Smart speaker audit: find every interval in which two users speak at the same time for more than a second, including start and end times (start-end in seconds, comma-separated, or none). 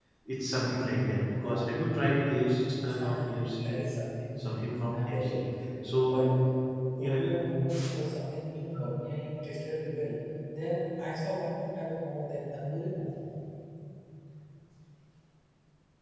none